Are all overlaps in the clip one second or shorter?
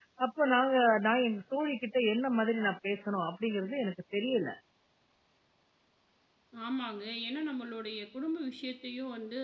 Yes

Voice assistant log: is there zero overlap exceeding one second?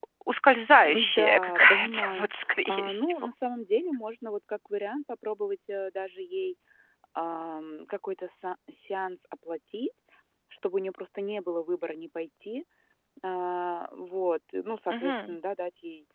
No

